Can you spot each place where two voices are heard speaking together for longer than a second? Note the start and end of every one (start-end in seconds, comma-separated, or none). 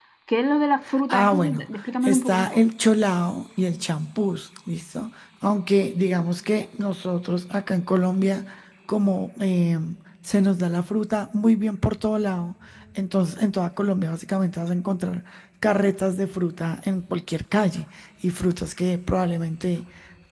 1.1-2.6